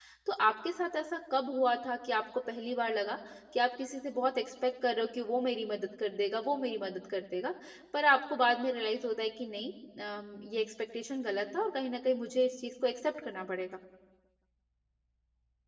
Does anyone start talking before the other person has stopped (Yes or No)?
No